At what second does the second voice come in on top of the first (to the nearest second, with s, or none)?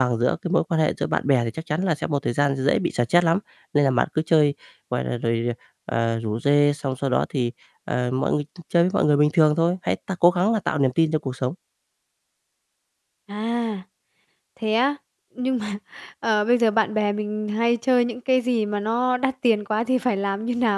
none